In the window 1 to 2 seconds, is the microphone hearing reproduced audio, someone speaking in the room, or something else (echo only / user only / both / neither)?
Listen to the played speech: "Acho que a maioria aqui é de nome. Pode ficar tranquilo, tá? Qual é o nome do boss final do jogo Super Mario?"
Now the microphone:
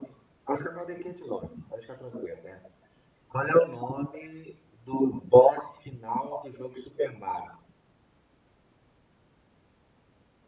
echo only